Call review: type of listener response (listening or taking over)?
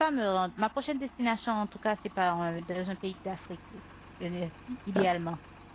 taking over